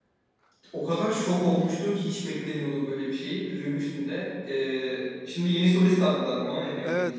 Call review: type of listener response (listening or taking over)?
taking over